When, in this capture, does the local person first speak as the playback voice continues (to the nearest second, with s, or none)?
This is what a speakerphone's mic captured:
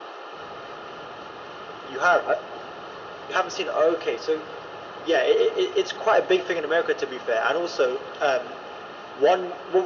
none